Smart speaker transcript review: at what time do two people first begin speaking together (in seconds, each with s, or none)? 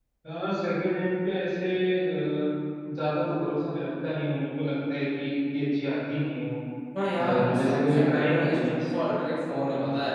7.2 s